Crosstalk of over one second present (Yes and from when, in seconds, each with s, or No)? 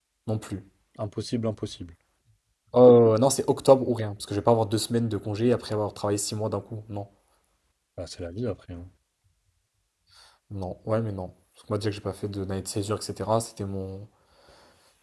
No